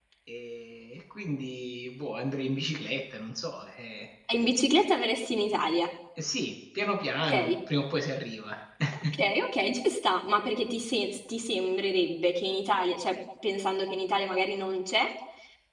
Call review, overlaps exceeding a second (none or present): none